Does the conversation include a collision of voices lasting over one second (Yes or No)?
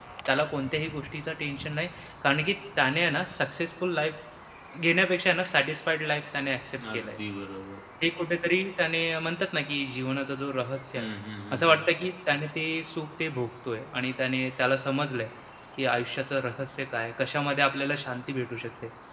No